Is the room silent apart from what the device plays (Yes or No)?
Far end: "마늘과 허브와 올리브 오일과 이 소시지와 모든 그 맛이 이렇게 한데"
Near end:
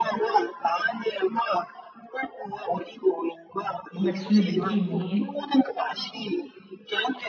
No